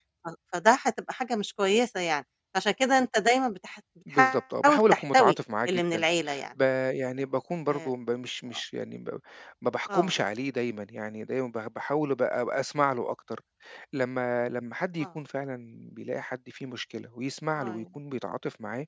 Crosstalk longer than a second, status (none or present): present